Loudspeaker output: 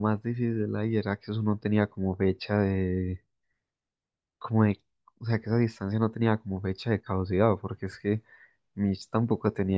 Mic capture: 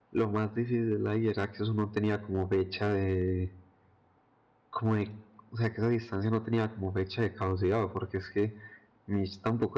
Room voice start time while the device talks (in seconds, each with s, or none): none